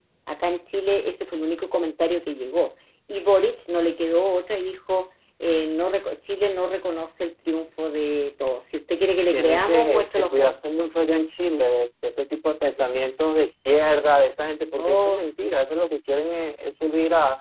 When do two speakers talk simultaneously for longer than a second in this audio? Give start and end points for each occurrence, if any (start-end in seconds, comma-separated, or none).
9.3-10.5